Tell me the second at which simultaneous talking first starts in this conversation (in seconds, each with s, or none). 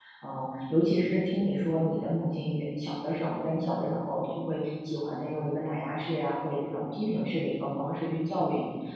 none